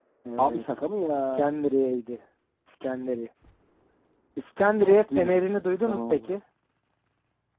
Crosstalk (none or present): present